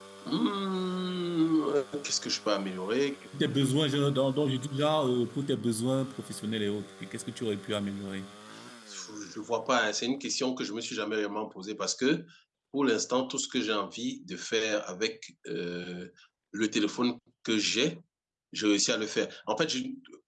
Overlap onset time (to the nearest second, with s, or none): none